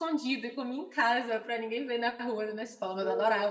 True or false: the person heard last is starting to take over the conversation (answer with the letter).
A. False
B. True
B